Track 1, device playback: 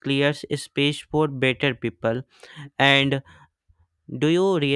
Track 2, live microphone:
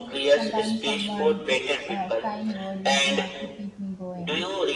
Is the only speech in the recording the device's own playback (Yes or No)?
No